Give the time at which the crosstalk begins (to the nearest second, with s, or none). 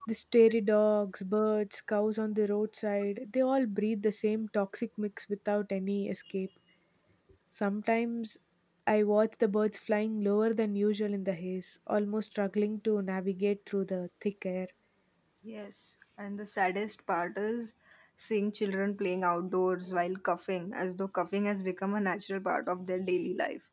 none